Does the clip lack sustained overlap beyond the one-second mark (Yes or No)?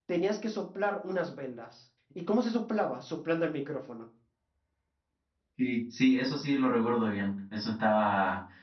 Yes